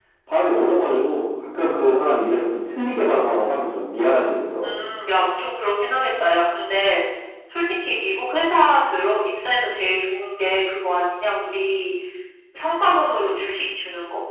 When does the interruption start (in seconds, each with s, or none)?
none